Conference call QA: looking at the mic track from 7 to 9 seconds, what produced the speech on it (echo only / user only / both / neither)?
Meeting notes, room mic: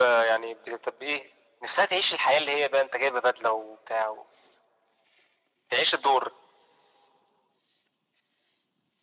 neither